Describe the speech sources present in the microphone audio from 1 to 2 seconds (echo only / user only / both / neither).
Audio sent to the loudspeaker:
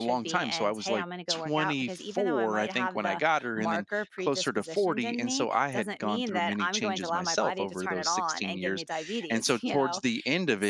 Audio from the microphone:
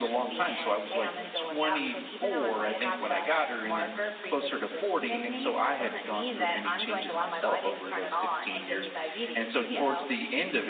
echo only